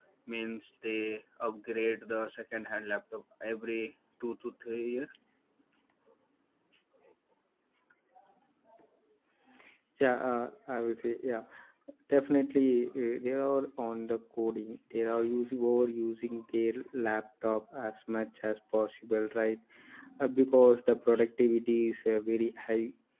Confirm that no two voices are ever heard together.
Yes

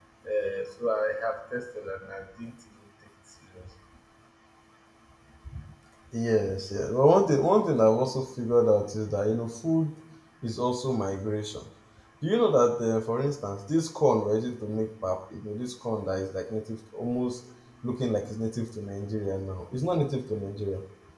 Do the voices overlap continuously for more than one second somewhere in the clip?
No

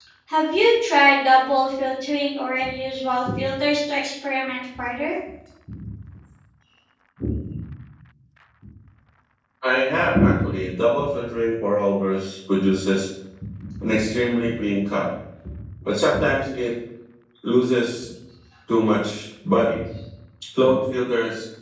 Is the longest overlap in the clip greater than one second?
No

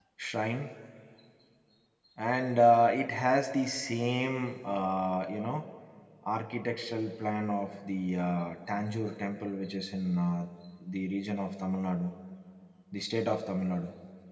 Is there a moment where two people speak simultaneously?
No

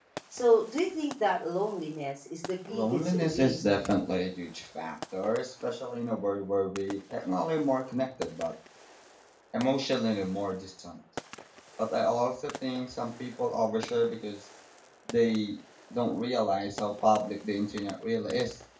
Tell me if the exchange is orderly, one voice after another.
No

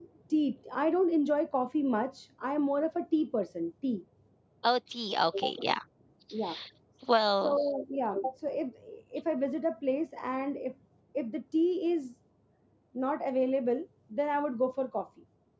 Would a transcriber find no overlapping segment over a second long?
Yes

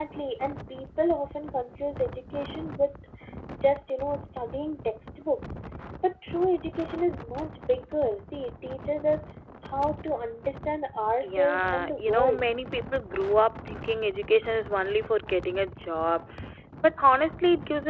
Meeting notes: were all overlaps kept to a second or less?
No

